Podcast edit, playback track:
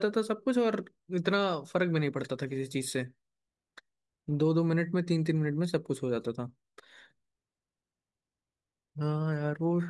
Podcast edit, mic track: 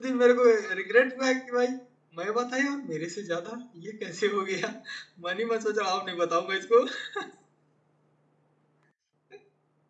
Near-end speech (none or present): present